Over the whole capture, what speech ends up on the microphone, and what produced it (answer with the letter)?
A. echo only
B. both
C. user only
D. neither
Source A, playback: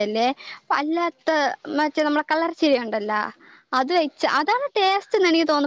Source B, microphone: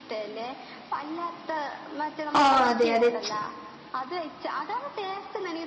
B